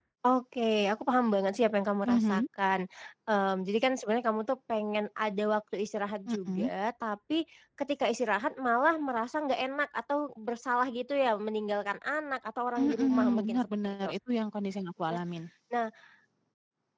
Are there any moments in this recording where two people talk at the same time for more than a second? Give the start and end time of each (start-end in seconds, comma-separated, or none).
12.8-14.2